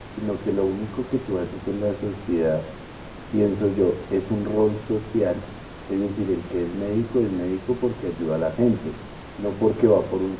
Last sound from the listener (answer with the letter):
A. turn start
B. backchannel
B